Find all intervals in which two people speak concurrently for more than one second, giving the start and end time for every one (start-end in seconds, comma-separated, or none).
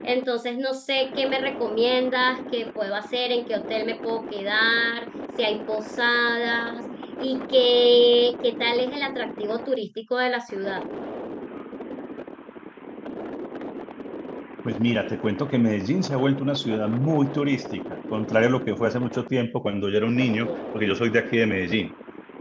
none